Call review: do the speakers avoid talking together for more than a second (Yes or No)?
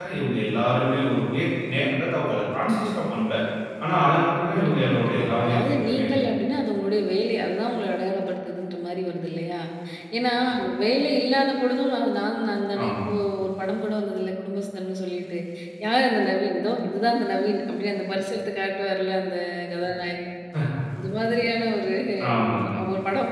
No